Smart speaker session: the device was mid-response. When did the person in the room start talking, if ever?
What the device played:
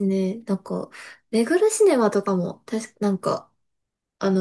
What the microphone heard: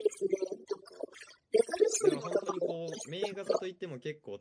2.0 s

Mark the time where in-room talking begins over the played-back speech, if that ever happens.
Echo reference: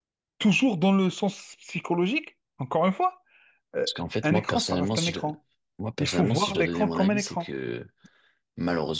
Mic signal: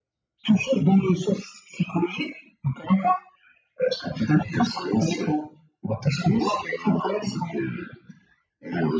none

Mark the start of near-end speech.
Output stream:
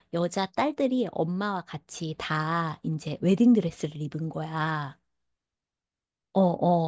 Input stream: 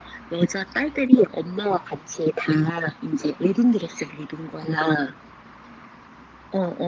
none

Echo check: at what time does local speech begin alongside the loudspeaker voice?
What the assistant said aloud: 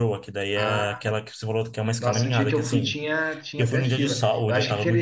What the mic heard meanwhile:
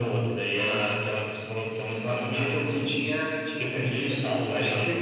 none

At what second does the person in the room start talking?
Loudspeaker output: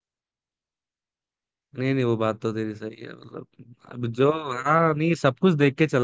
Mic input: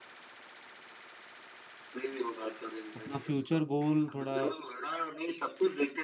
3.0 s

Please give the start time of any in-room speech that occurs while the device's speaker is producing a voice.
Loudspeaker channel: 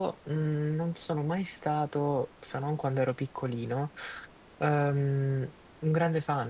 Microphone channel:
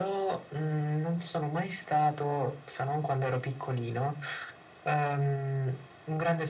none

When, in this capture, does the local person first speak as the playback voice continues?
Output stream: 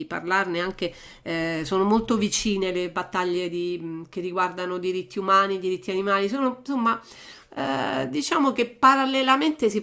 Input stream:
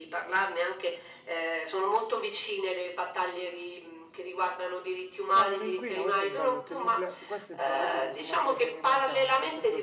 5.3 s

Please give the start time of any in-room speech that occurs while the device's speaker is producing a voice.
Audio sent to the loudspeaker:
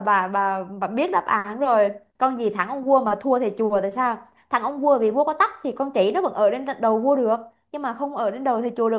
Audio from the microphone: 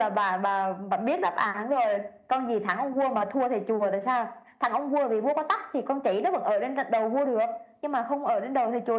none

